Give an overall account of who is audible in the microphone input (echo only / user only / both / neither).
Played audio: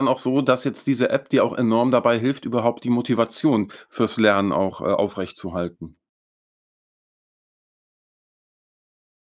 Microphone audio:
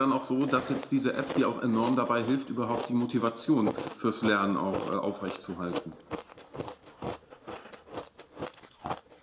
echo only